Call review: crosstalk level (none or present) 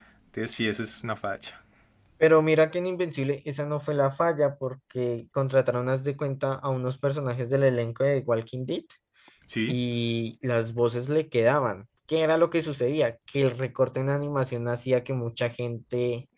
none